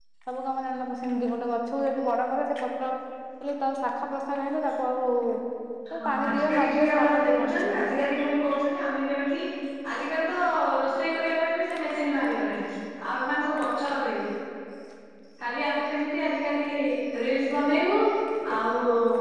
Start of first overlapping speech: 6.0 s

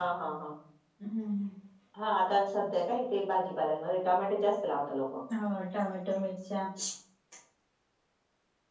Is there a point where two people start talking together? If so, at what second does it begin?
none

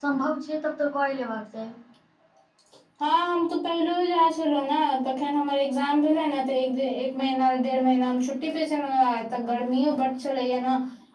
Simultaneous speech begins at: none

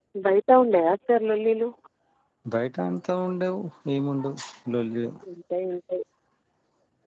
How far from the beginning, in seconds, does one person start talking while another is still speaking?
none

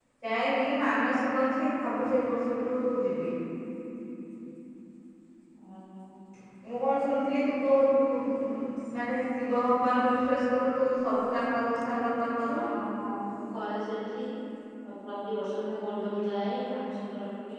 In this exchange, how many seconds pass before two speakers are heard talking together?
none

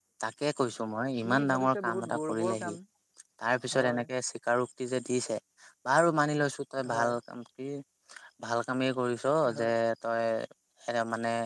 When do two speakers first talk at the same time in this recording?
1.2 s

